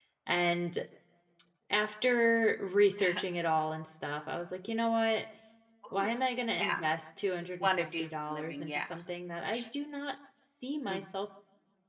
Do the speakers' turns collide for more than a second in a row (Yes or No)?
Yes